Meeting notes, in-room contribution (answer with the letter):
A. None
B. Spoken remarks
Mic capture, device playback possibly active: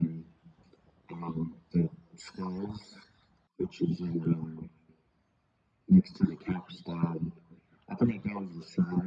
A